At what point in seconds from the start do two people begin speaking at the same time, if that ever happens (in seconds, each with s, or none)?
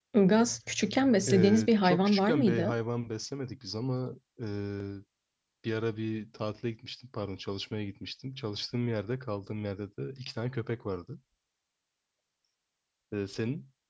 1.3 s